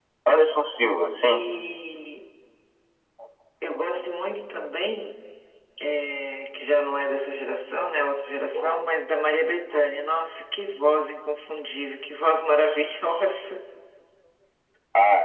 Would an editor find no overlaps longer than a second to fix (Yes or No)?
Yes